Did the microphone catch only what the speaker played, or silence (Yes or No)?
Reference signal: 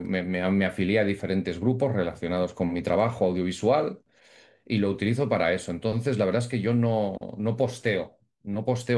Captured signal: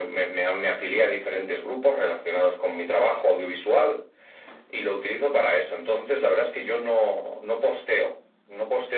Yes